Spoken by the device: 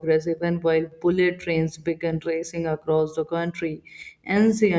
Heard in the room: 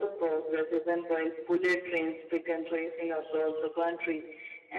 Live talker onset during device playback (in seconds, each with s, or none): none